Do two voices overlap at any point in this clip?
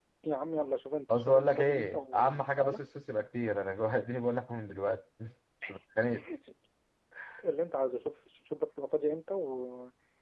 Yes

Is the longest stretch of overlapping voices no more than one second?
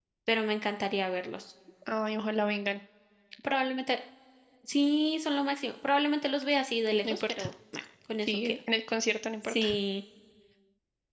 Yes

